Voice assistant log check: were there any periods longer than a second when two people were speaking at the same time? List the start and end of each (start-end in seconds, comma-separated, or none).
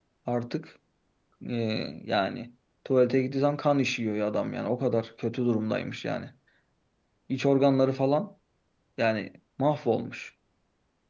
none